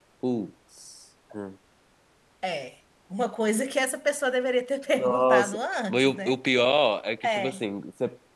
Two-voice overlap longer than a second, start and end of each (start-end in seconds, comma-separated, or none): 5.0-6.4